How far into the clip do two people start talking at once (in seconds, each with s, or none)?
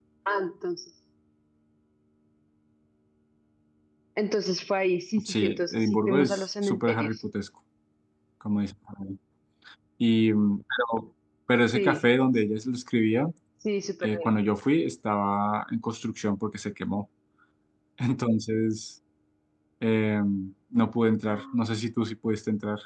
5.2 s